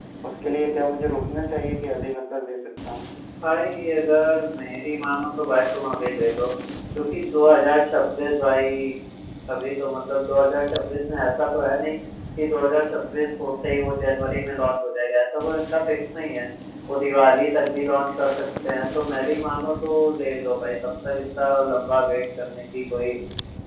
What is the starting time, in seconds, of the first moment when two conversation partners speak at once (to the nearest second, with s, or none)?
none